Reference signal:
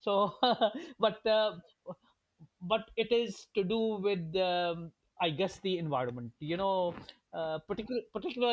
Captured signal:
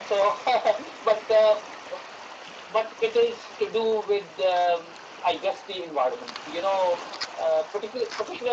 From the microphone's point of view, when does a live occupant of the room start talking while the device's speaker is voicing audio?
none

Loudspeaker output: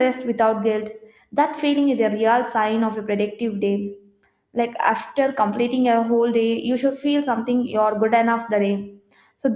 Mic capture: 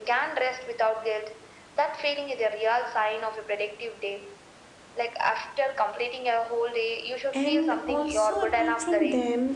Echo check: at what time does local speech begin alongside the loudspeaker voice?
7.3 s

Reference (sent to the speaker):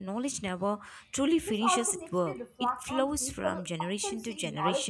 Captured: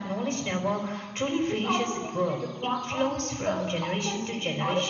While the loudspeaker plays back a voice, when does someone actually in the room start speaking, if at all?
none

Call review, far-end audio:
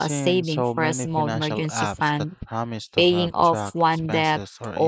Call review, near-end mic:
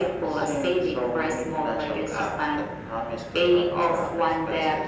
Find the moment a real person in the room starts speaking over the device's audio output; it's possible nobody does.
none

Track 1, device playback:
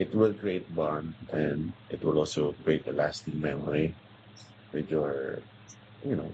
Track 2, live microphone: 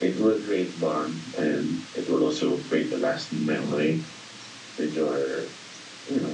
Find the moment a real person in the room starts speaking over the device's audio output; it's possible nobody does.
none

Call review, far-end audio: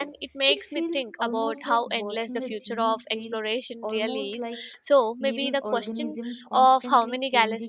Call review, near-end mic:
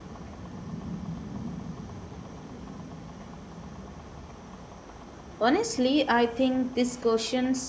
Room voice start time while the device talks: 5.4 s

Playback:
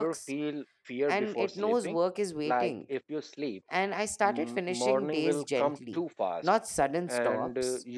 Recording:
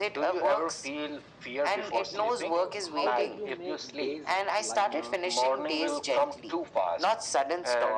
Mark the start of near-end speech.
2.5 s

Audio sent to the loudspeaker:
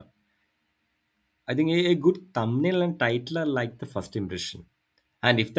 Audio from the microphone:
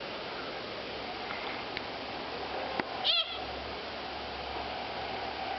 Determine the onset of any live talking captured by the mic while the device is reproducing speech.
none

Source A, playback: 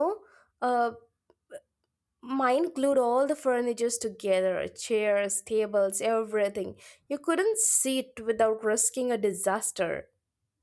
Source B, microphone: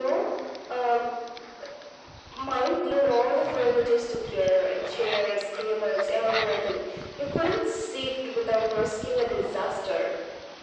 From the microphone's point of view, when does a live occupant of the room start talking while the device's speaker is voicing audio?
none

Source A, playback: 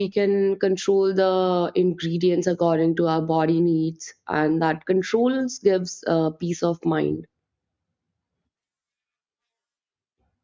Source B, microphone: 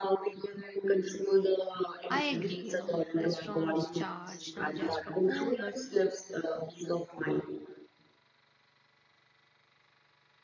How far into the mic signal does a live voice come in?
2.1 s

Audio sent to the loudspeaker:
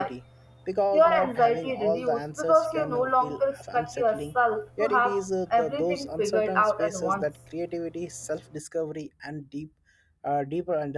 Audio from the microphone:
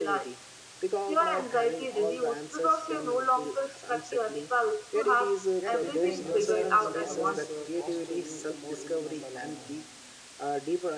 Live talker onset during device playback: 5.5 s

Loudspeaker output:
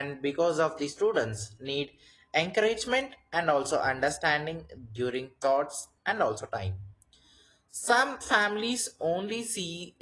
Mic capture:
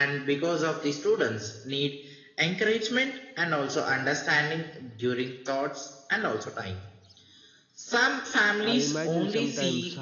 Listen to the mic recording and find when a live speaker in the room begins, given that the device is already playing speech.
8.6 s

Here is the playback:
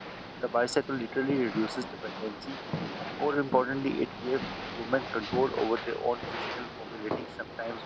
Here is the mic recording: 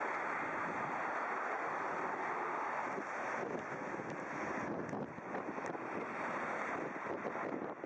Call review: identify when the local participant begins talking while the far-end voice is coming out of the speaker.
none

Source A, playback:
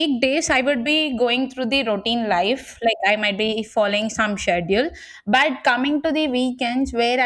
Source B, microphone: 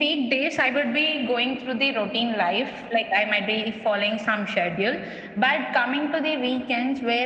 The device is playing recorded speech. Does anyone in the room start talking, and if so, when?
none

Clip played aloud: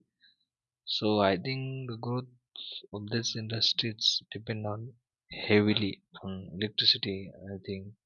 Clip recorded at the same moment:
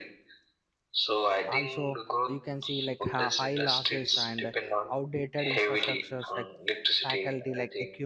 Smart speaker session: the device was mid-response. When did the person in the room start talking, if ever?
1.4 s

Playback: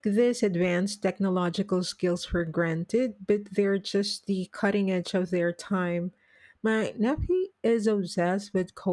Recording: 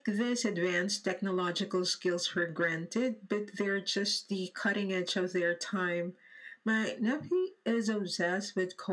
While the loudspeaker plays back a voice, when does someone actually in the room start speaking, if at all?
none

